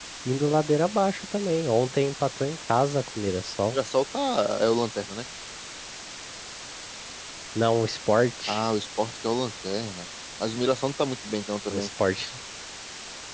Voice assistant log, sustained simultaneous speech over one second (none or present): none